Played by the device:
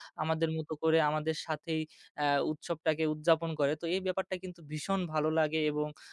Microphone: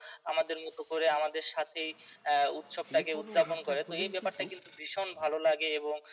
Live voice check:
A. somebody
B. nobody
A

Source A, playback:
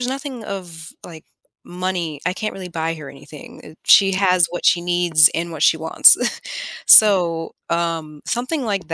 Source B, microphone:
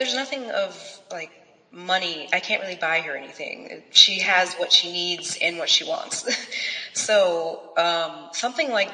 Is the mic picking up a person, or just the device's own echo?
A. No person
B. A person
A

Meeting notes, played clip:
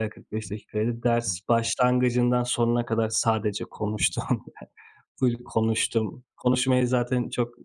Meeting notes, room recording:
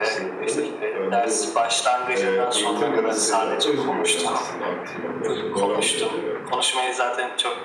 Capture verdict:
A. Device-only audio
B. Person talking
B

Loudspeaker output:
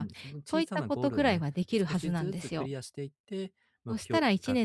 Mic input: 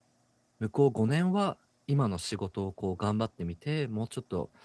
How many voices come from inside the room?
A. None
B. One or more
B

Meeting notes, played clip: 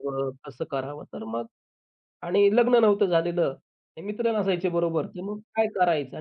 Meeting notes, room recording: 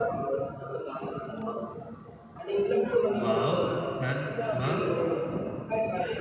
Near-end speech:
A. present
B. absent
A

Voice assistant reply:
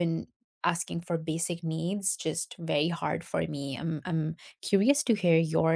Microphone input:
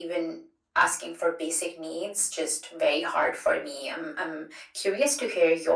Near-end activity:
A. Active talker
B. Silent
B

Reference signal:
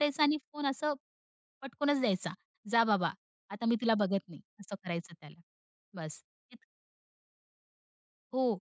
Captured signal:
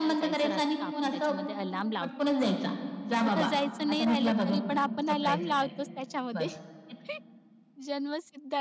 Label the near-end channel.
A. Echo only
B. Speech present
B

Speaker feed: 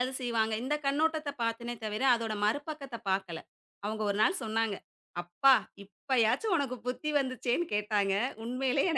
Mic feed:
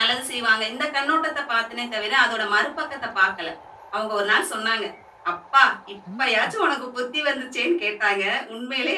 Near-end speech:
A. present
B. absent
A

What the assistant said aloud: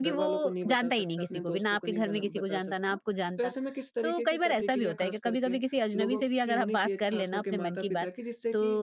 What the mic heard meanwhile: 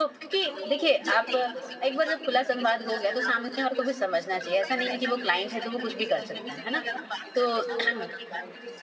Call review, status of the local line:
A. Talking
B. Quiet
A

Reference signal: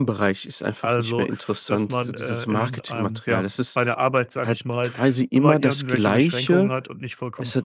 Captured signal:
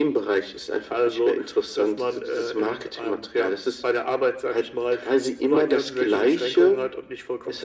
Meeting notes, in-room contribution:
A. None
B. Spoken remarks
A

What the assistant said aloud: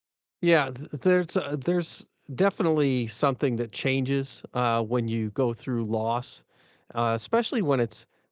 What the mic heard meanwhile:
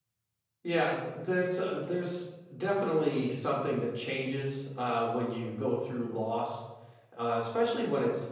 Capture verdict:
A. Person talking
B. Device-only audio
B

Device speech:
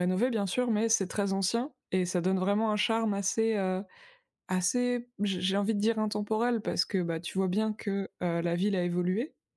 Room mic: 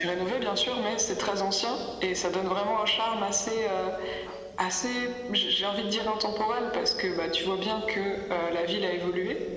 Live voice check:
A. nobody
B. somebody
A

